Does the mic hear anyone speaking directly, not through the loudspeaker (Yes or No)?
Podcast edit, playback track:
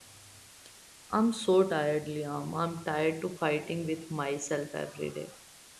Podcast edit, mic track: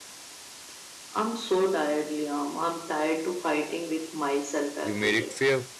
Yes